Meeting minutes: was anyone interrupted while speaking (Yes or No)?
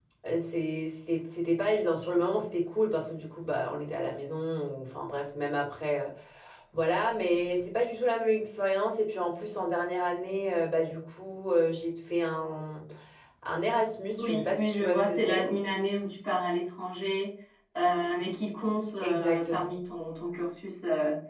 Yes